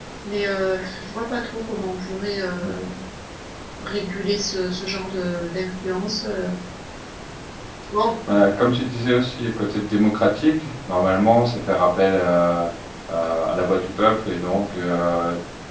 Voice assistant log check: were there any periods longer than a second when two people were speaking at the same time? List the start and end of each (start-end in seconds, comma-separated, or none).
none